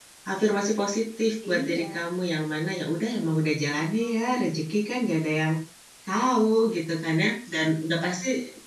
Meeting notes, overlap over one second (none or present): present